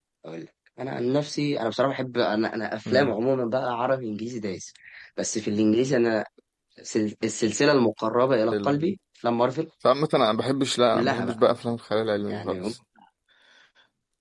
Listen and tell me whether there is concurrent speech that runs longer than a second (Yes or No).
No